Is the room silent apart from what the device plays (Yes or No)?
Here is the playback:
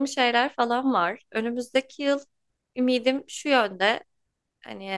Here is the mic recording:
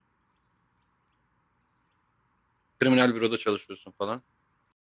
No